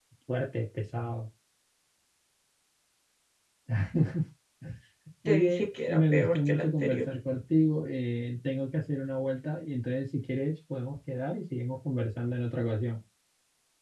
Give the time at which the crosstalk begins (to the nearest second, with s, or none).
5 s